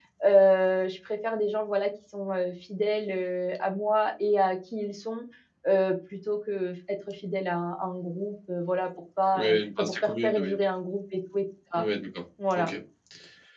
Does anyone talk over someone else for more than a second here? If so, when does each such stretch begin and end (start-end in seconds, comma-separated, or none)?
9.4-10.6